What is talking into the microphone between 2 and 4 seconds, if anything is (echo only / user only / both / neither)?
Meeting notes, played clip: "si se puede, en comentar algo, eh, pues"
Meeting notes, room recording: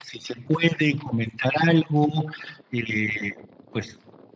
echo only